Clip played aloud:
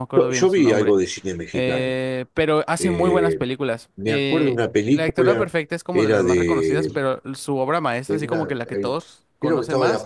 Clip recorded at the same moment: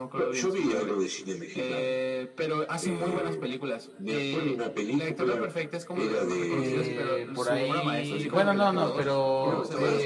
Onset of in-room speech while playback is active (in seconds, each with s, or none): 6.5 s